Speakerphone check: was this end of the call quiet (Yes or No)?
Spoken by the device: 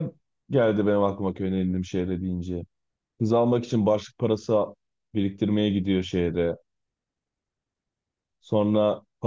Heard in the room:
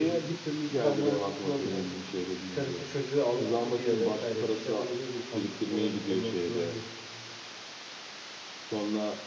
No